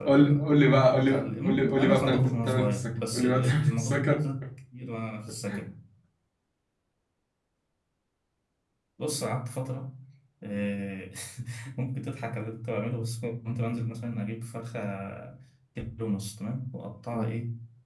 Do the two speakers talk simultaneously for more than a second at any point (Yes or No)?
Yes